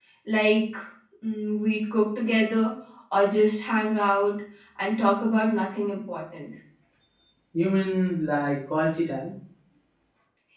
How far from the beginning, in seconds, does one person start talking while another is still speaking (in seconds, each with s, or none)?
none